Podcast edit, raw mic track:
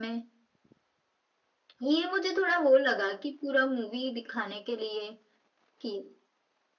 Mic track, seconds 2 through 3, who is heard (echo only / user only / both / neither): echo only